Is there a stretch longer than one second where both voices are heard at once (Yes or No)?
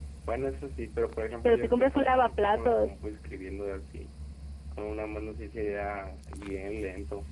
Yes